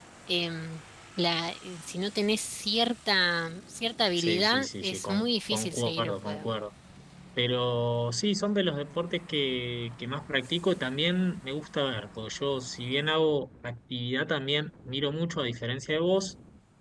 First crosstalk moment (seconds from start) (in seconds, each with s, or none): 4.2 s